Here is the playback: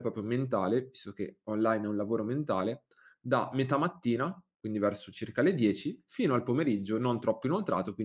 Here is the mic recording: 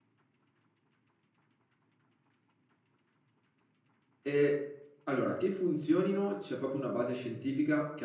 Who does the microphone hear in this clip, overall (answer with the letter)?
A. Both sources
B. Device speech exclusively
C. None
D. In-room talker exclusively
D